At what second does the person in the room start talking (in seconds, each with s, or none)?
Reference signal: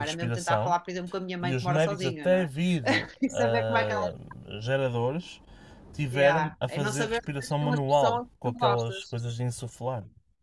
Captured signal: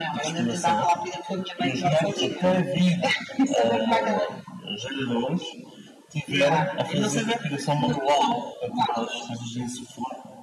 none